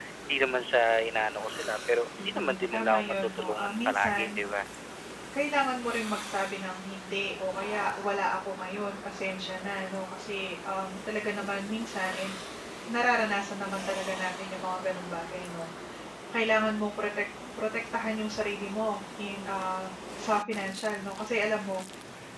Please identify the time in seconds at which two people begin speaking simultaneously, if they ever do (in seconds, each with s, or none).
2.2 s